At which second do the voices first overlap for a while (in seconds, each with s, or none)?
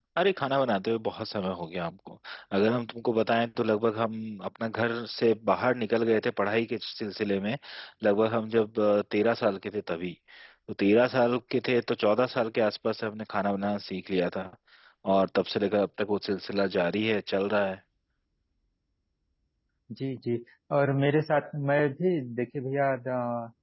none